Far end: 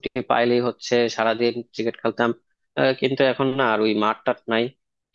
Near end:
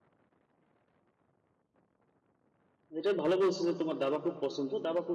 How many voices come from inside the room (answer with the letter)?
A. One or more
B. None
A